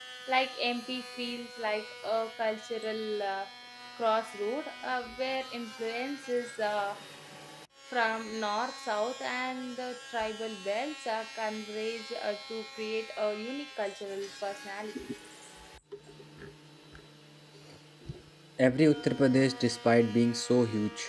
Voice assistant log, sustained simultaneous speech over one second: none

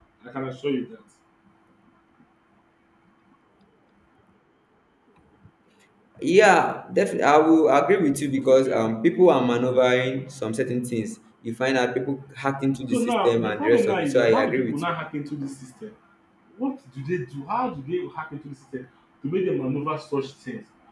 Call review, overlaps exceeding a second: present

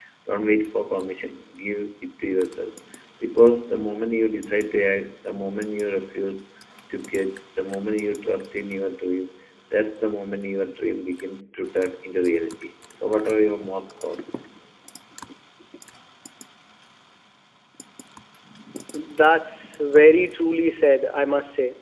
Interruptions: none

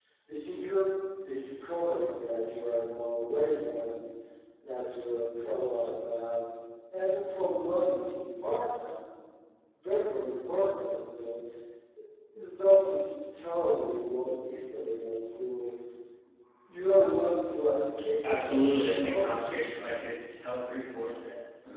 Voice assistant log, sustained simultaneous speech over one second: present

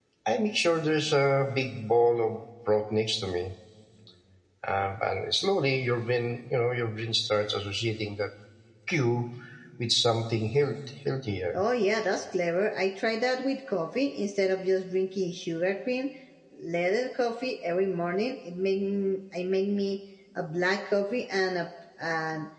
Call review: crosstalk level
none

